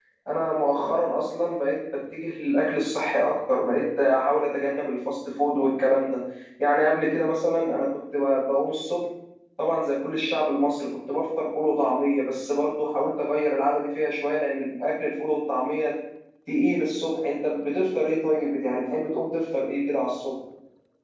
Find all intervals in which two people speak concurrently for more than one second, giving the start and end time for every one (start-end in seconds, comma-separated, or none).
none